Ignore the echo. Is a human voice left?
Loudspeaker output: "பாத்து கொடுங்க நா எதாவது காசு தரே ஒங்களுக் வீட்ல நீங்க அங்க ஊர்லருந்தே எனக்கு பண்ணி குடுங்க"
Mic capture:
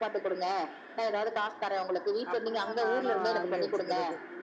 Yes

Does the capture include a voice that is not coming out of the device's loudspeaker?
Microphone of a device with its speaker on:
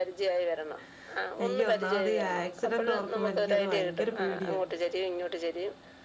Yes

